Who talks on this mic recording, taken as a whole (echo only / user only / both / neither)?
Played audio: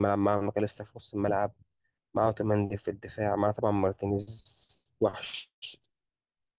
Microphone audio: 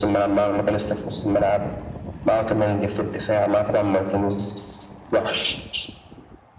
echo only